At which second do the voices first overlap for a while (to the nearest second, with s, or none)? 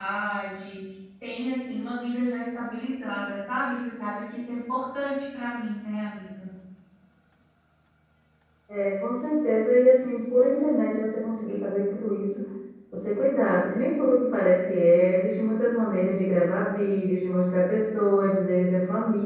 none